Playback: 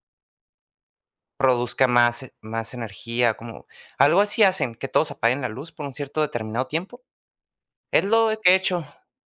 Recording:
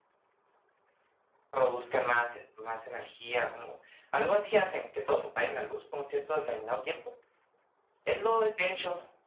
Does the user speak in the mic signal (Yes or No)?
No